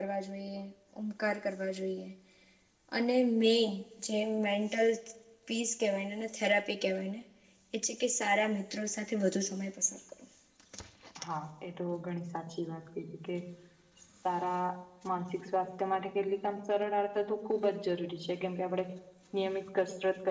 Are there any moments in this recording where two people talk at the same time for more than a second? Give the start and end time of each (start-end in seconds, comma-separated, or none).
none